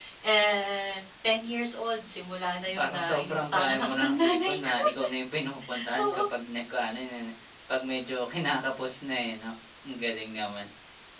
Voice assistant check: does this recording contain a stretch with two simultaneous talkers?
Yes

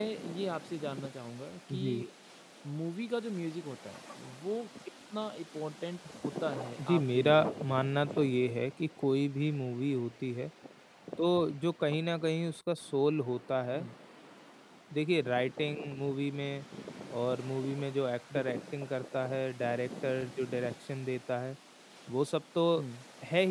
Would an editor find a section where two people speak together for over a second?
Yes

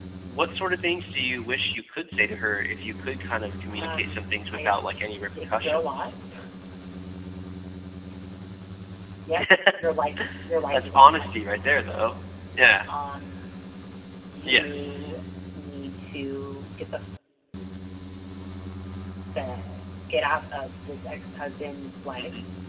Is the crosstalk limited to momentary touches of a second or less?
No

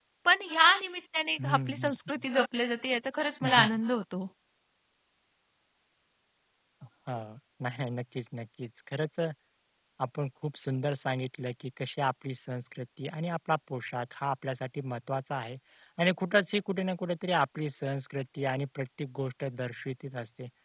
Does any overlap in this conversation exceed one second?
No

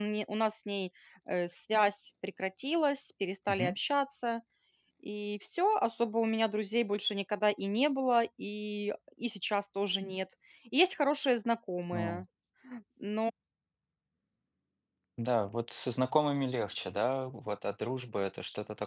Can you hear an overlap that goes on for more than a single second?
No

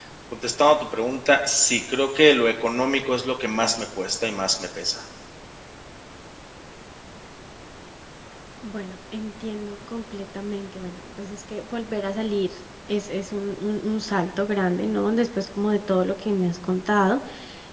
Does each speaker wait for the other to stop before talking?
Yes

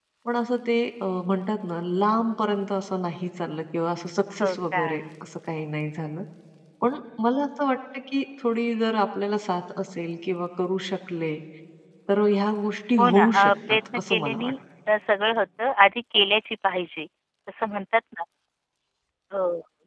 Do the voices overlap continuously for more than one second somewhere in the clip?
Yes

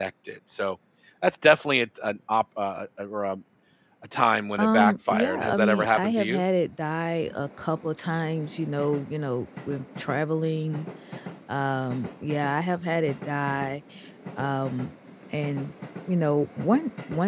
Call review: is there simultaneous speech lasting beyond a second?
Yes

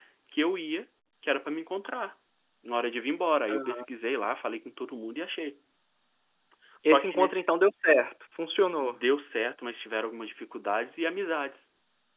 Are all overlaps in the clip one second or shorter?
Yes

